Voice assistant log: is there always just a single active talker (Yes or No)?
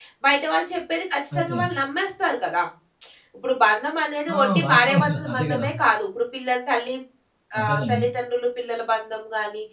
No